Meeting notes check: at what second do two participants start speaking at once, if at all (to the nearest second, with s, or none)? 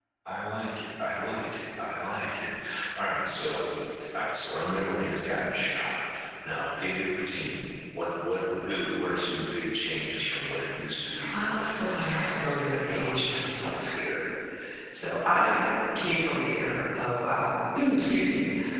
11 s